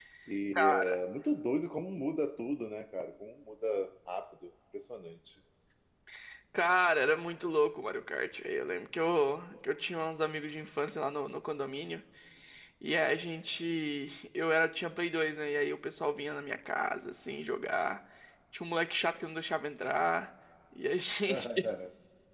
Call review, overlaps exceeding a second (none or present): none